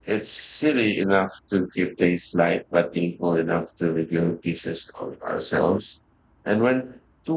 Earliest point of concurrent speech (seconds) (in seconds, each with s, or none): none